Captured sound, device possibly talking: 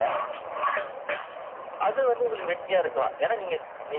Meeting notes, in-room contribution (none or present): present